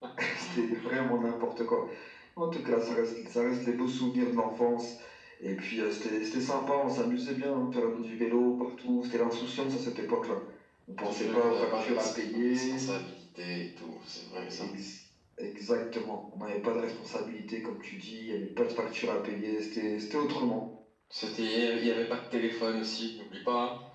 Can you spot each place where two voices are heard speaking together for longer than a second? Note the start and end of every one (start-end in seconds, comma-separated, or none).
11.0-12.8